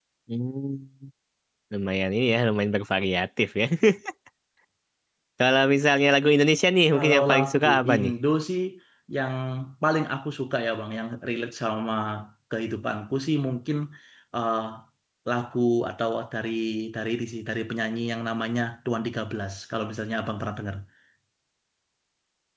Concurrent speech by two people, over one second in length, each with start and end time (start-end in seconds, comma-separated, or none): 6.9-8.1